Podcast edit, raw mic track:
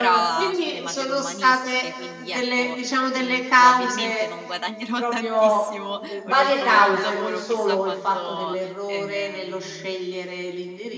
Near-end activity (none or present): present